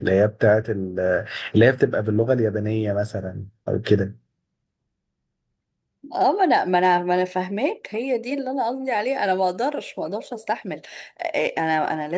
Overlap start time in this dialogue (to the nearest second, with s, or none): none